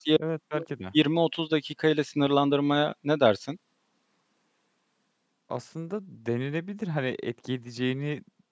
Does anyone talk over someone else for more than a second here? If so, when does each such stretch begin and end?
none

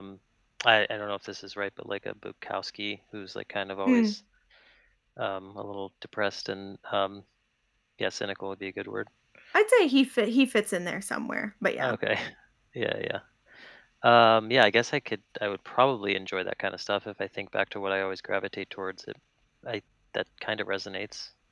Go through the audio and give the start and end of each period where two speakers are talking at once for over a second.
none

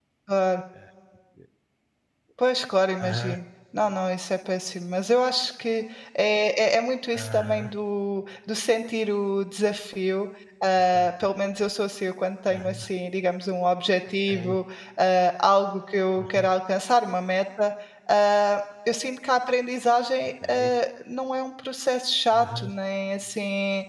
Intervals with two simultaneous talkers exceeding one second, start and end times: none

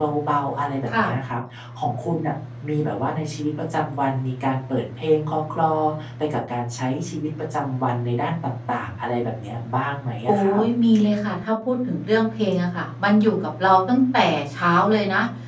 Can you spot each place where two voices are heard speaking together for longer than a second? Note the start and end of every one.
none

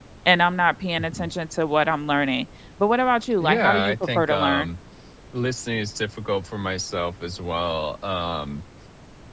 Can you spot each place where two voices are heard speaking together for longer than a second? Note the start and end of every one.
3.4-4.7

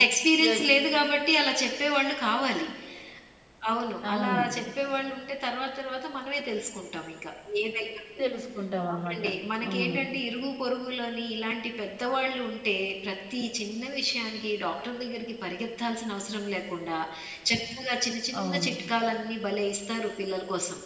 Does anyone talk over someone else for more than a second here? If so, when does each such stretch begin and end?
none

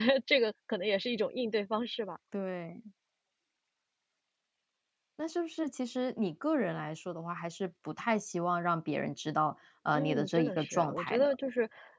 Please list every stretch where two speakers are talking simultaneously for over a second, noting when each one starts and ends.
9.9-11.3

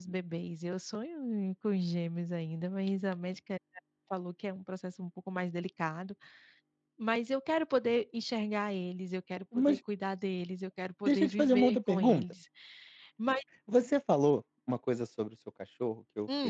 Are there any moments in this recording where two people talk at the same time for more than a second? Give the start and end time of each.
11.0-12.2

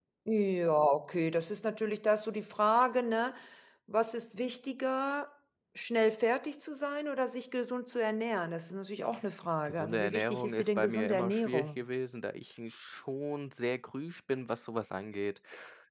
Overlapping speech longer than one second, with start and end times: 9.7-11.8

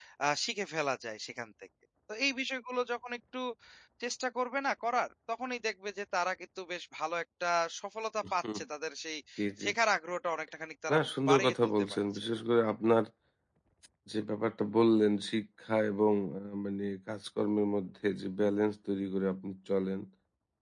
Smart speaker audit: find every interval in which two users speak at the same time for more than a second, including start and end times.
10.9-12.2

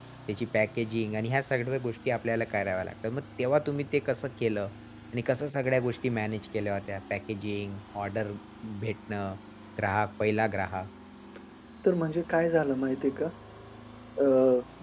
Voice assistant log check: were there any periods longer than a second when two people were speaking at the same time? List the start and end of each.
none

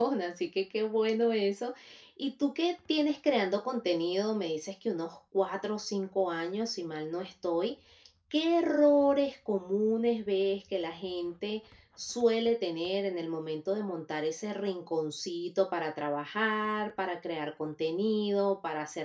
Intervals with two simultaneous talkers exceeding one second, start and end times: none

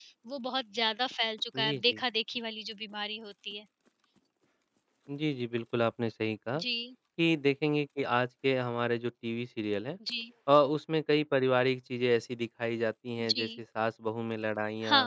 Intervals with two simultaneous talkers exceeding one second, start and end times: none

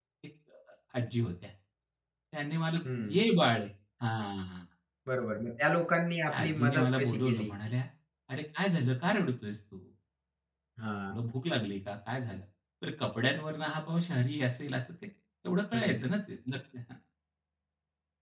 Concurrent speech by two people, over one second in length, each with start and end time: 6.3-7.5

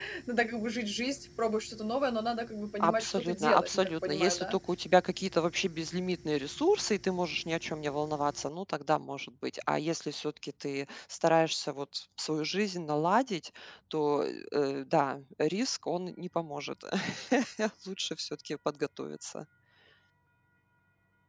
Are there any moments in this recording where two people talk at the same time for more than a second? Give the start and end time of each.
2.8-4.6

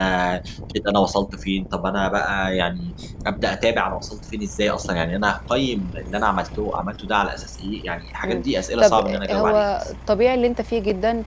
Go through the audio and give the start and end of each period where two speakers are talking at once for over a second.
8.2-9.9

